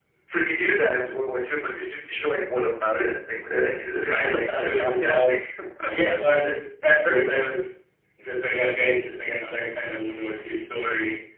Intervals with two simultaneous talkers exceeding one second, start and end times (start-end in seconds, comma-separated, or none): 4.1-5.3